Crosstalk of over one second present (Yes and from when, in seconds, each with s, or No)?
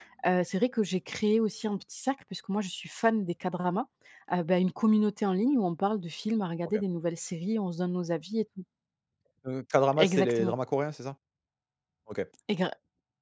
No